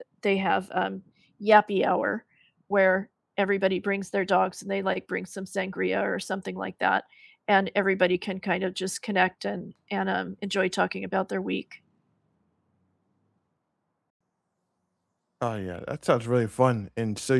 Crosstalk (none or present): none